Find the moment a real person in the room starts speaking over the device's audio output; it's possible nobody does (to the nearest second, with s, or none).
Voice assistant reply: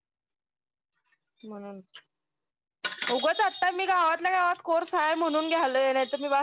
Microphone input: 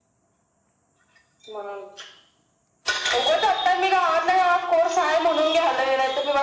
none